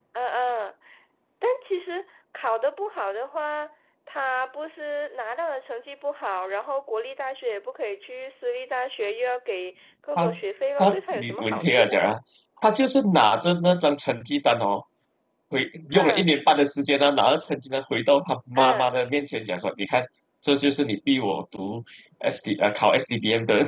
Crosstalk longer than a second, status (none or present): present